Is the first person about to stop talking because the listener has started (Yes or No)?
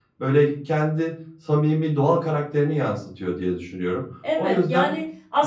Yes